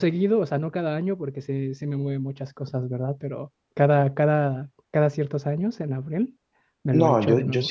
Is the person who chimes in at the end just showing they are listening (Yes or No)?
No